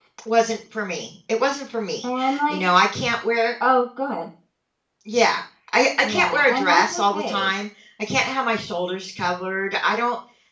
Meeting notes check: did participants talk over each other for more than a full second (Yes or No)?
Yes